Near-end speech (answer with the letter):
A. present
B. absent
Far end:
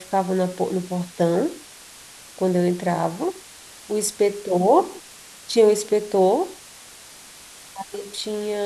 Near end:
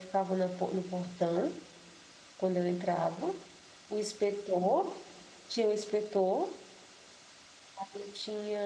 B